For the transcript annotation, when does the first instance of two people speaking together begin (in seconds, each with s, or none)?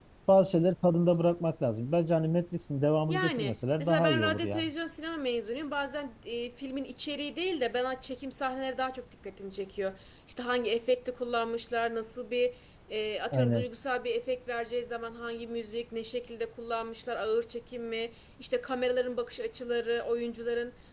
3.1 s